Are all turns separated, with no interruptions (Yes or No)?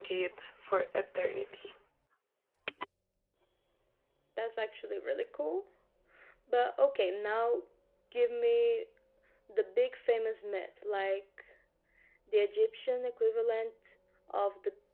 Yes